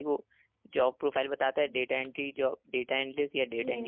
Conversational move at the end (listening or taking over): taking over